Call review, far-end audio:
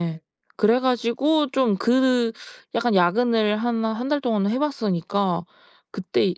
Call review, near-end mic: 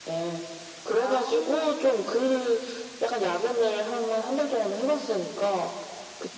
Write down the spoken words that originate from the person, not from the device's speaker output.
아

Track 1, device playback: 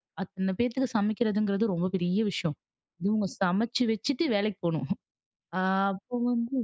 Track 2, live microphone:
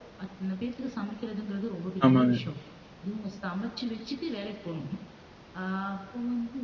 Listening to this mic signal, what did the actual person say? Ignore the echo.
ஆமாங்க.

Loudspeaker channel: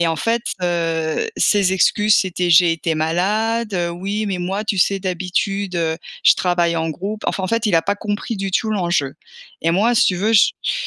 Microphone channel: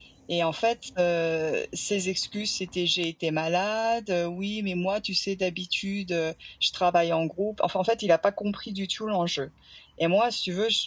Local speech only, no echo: none

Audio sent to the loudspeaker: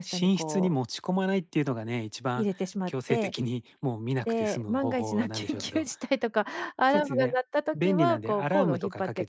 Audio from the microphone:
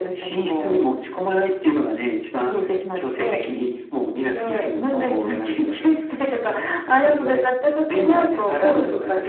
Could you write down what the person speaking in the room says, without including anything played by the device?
none

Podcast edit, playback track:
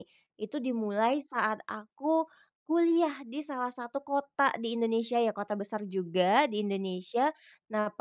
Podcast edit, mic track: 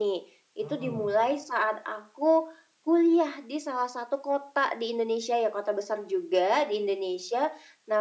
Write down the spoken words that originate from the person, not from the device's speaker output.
Oh.

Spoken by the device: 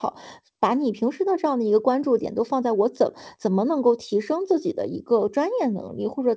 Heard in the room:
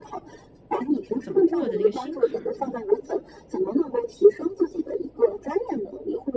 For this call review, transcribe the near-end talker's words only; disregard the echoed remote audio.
是怎么过的那个心坎儿呢？

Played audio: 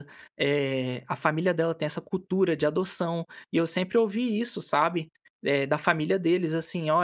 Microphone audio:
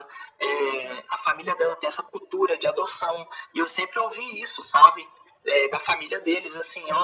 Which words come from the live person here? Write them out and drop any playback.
none

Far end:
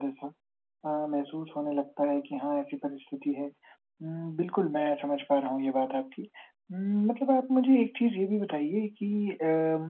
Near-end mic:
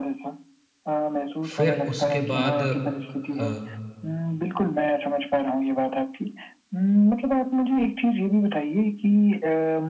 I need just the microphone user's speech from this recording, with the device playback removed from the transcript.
फिर उसके बाद अ,

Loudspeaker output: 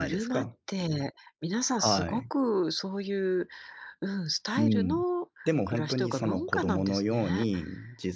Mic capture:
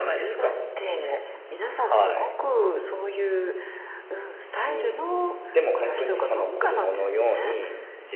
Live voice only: none

